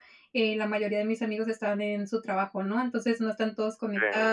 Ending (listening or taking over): listening